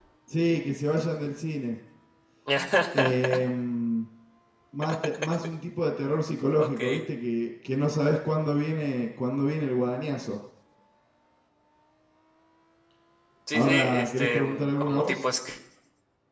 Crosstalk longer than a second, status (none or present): present